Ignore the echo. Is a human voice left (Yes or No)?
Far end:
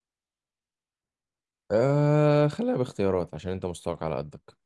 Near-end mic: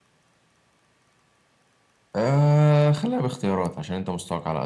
No